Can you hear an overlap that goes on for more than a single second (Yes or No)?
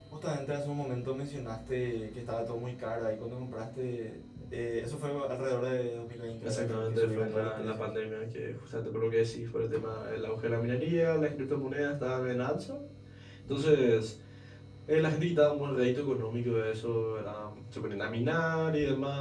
Yes